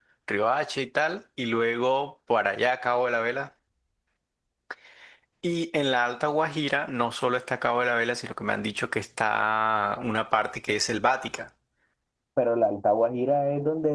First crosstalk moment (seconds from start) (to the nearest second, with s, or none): none